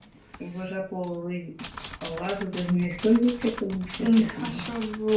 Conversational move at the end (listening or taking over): taking over